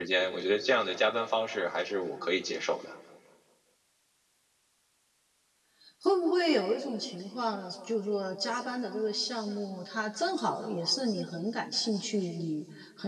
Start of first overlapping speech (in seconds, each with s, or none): none